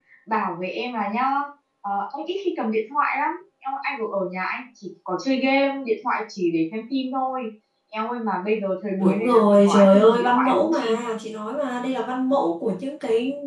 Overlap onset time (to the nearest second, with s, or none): 9 s